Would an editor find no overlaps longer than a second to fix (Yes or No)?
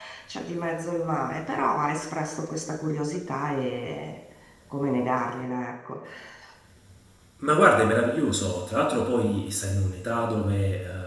Yes